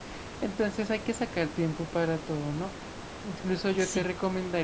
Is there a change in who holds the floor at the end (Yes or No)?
No